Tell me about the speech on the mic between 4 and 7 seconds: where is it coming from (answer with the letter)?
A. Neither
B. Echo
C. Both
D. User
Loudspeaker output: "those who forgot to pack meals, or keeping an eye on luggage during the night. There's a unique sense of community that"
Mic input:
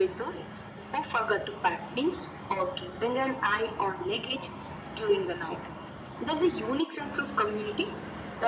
B